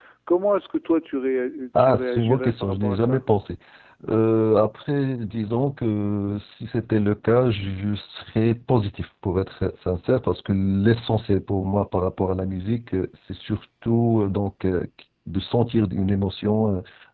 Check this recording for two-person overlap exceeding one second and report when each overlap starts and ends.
1.8-3.2

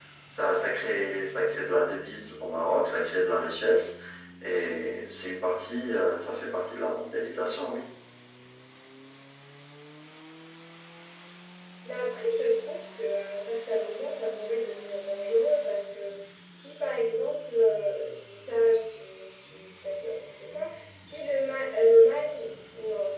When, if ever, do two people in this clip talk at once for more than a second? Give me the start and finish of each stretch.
none

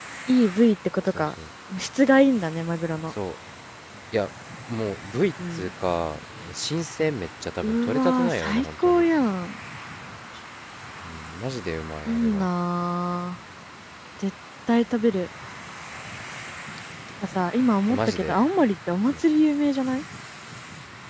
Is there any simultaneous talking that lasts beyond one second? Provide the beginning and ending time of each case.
7.6-9.1

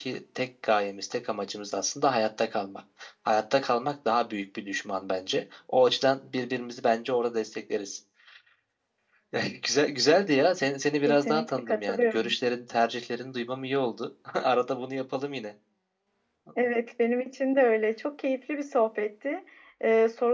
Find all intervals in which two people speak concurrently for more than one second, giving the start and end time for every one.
11.1-12.3

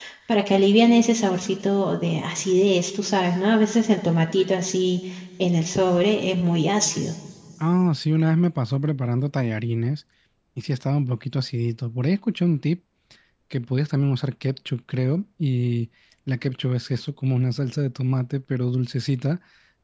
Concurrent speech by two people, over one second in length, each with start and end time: none

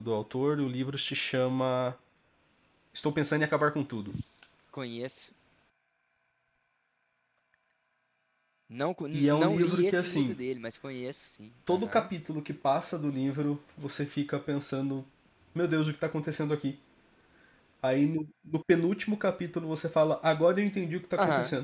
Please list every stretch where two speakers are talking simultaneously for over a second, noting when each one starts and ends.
9.1-10.4

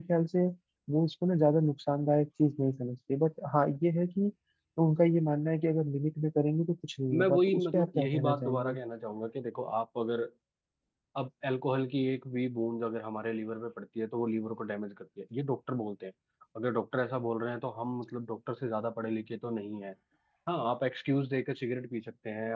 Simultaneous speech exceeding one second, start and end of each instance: 7.1-8.8

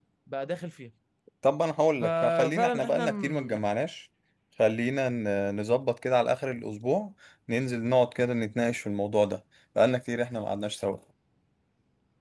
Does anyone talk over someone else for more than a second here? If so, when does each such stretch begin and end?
2.0-3.6

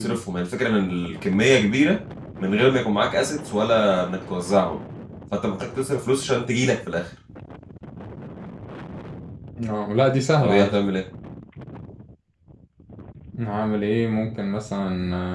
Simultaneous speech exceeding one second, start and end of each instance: none

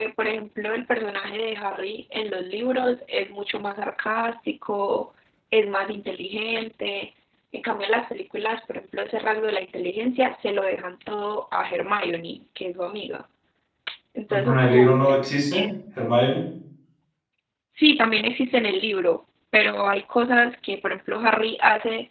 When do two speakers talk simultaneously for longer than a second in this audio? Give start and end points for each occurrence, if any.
14.3-15.6

